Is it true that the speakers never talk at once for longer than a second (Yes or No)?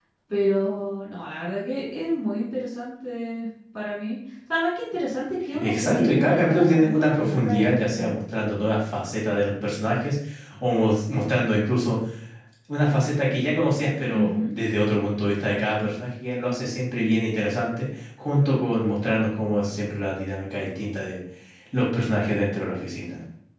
No